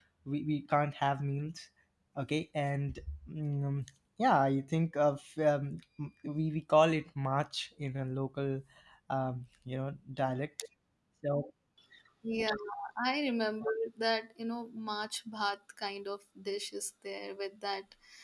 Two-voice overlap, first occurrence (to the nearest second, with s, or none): none